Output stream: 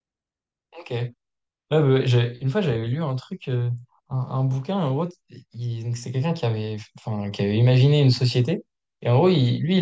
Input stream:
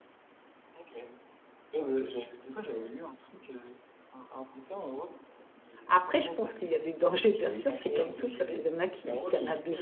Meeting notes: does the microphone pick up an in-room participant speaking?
Yes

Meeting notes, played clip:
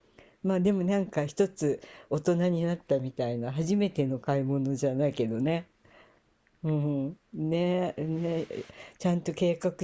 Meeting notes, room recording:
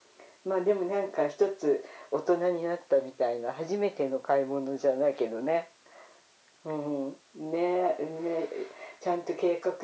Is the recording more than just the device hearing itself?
No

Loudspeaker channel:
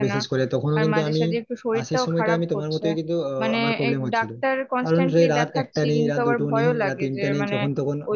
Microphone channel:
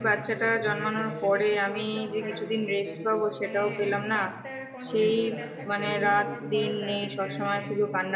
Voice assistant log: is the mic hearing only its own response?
No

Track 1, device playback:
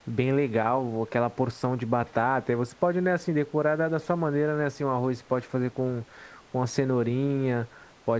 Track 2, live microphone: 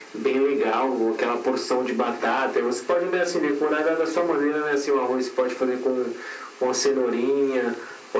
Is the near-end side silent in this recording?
Yes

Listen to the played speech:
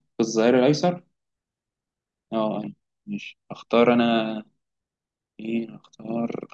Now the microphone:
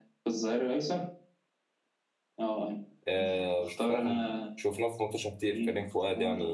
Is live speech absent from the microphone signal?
No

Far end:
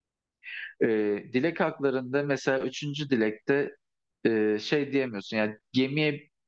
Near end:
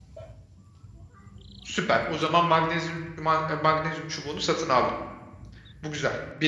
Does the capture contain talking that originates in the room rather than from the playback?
Yes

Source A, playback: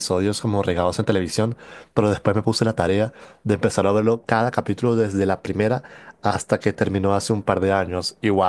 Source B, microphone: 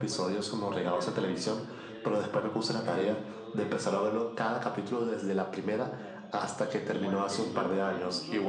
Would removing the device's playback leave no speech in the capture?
No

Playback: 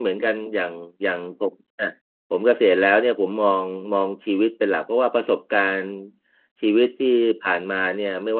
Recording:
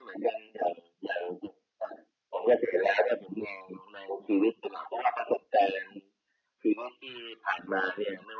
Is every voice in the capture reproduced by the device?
Yes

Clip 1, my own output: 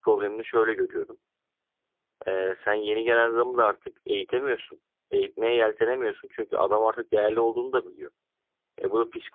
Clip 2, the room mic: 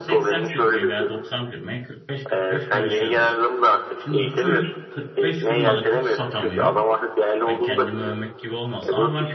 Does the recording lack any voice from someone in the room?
No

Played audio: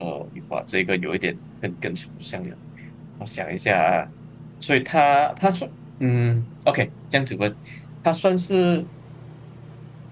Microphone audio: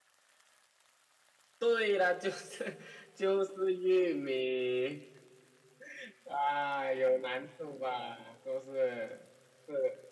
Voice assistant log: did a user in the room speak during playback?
Yes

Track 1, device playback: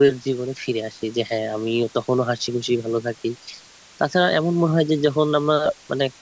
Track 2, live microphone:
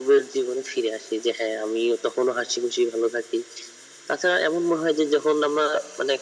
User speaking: No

